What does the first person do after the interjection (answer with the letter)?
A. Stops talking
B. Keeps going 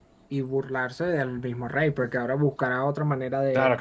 A